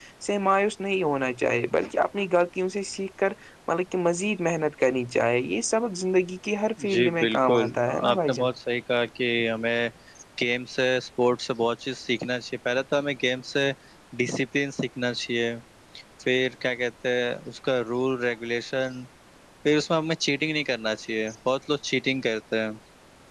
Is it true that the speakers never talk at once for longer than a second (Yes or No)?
No